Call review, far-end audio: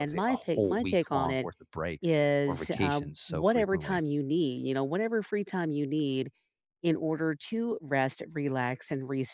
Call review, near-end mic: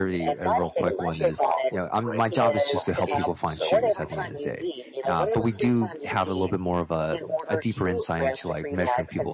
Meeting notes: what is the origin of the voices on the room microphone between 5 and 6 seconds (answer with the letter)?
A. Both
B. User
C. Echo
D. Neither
A